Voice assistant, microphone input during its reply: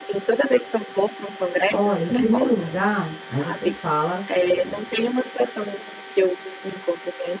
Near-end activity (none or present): present